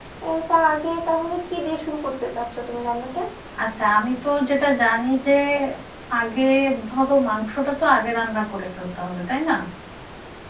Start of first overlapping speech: none

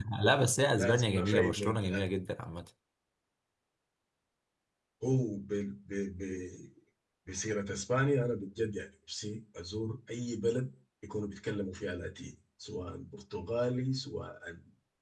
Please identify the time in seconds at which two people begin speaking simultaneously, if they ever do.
1 s

